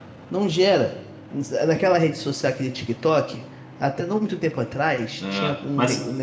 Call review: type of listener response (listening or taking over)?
listening